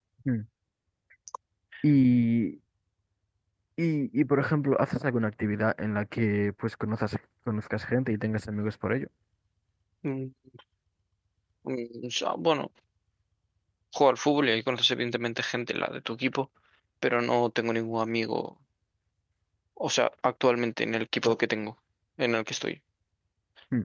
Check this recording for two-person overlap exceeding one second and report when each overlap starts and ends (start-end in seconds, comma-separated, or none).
none